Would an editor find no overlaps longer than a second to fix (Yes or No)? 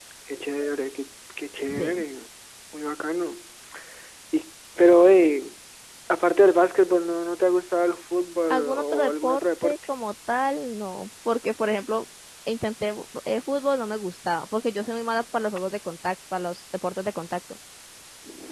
No